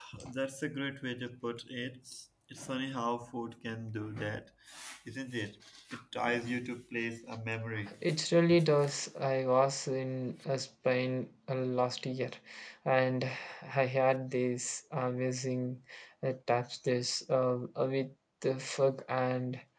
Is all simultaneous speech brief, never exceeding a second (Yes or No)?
Yes